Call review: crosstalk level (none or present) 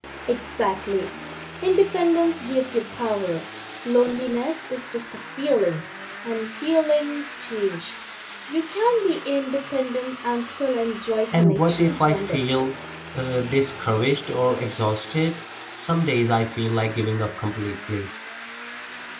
present